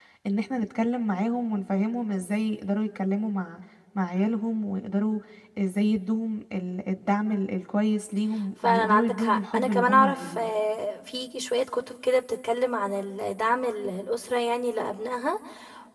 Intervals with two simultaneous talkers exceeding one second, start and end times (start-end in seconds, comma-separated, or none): 8.6-10.5